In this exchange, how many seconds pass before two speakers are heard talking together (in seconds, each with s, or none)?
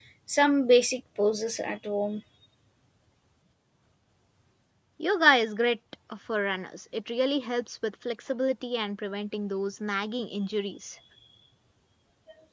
none